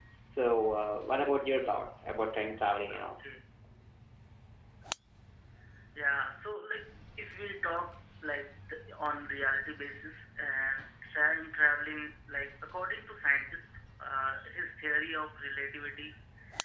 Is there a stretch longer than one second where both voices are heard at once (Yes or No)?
No